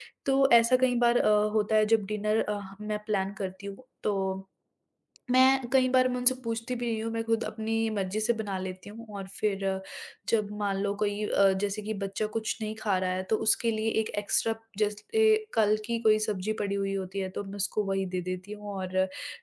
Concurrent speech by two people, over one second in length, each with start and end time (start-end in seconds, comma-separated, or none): none